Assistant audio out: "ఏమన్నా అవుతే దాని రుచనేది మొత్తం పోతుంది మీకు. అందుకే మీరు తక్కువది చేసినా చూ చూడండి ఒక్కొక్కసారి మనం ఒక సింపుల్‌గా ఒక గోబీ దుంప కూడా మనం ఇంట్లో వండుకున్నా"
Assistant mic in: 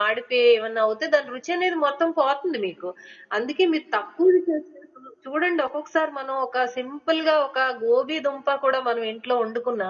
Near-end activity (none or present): none